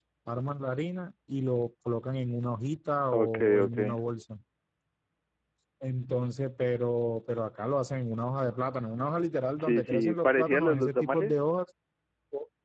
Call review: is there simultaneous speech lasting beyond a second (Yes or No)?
Yes